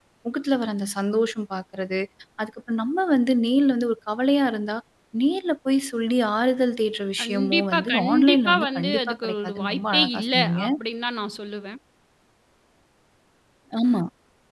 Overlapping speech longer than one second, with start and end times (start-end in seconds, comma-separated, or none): 7.2-10.6